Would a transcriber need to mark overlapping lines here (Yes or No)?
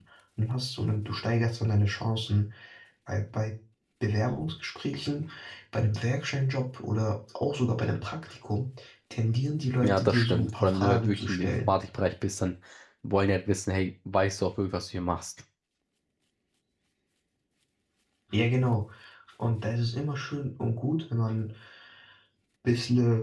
Yes